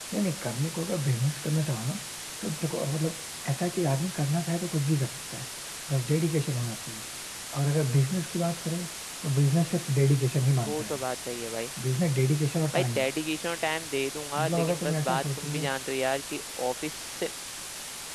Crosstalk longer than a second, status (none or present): present